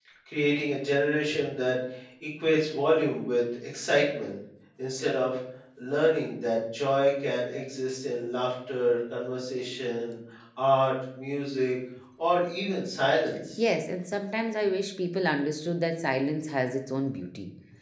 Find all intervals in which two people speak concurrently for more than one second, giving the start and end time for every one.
none

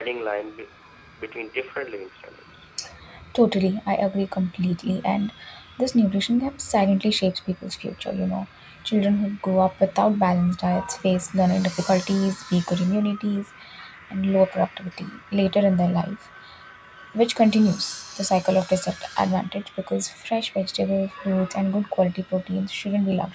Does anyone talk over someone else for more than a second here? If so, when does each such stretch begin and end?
none

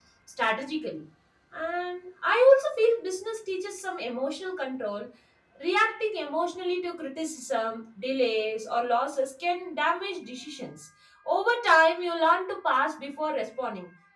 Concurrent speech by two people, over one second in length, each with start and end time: none

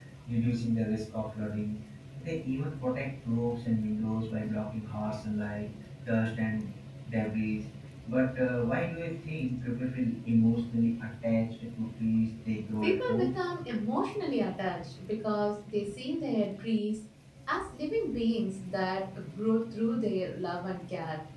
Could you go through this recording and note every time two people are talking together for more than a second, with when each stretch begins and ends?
none

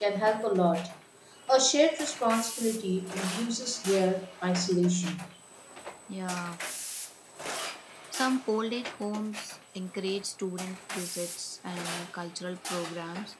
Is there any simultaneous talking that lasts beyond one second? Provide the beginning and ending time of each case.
none

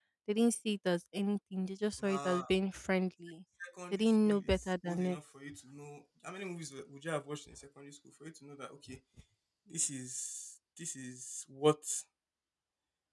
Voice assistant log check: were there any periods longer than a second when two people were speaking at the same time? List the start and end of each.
3.9-5.2

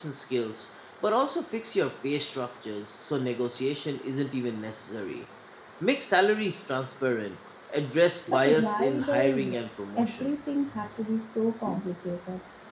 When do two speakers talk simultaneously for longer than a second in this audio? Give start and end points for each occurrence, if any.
8.3-9.5

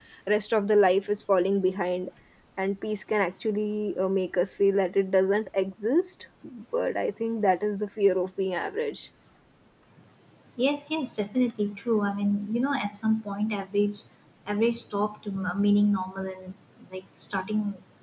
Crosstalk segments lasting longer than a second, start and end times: none

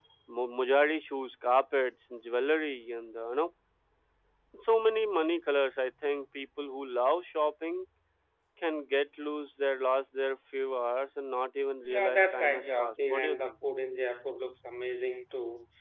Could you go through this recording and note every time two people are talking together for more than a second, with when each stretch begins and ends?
11.9-13.5

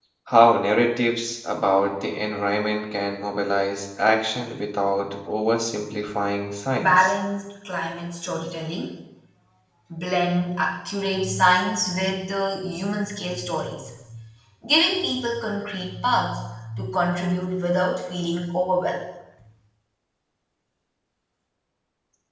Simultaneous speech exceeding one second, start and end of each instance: none

